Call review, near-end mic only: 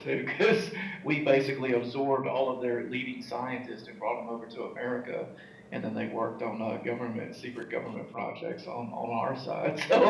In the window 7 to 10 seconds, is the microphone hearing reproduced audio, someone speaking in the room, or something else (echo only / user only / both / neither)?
echo only